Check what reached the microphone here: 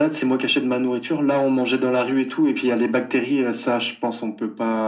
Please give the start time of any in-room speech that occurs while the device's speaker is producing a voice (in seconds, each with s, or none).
none